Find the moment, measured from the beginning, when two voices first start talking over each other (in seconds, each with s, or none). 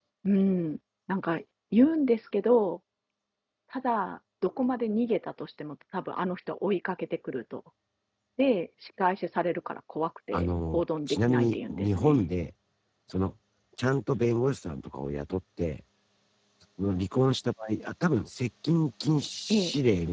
10.3 s